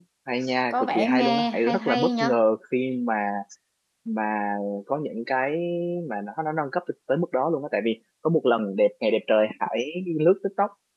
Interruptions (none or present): present